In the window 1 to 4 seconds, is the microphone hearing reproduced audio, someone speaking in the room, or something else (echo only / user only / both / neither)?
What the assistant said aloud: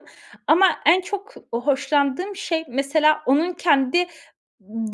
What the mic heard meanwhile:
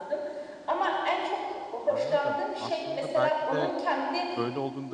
both